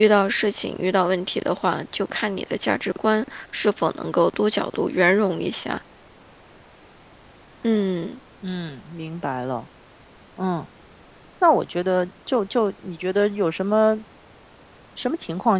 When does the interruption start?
none

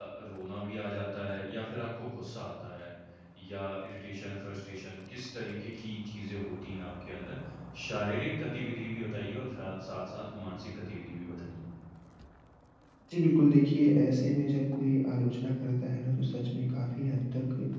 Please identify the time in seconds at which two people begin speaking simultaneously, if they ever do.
none

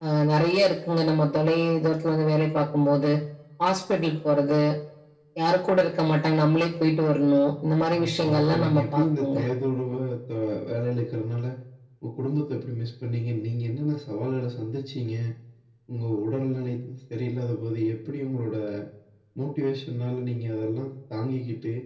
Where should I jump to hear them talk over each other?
7.9 s

